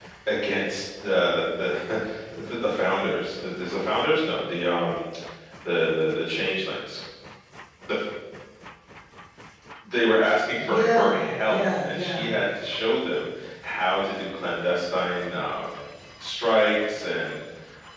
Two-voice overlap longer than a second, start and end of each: 10.6-12.3

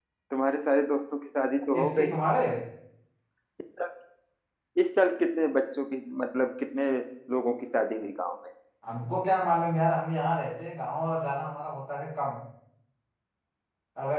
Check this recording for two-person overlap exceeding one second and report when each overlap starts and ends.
none

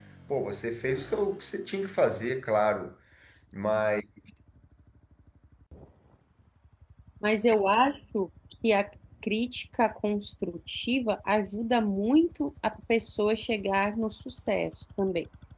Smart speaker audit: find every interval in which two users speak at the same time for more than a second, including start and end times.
none

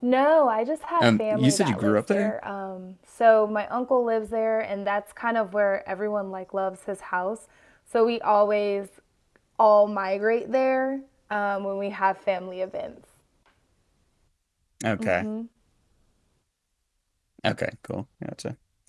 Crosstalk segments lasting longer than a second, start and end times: 1.0-2.3

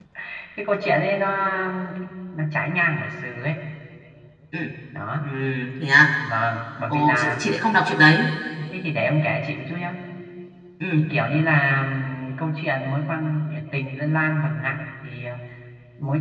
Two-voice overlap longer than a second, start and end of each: none

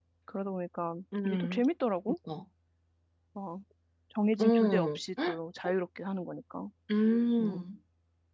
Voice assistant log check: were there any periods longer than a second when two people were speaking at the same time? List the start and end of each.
none

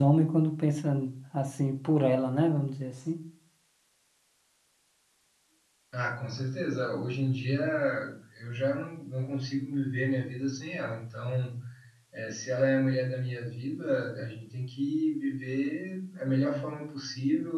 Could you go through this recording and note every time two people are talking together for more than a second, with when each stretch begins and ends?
none

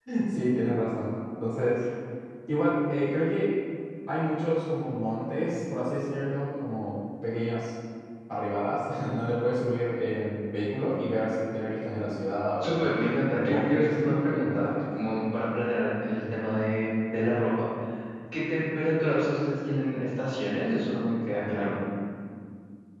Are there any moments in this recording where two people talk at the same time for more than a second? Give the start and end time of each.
13.3-14.7

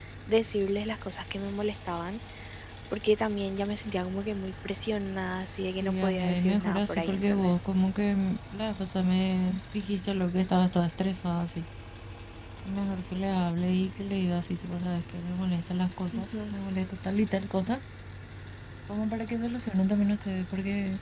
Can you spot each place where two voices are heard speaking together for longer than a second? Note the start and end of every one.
5.8-7.6

